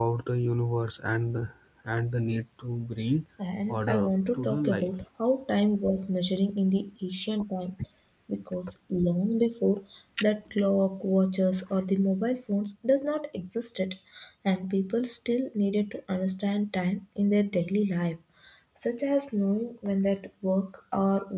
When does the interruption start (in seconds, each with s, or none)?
3.7 s